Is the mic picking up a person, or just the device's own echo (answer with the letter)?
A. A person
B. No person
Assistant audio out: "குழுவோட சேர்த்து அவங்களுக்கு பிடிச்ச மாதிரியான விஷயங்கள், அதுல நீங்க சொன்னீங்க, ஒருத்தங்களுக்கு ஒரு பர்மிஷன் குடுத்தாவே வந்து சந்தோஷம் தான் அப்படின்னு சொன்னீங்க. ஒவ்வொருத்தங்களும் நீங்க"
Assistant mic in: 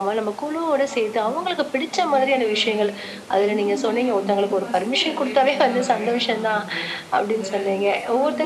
A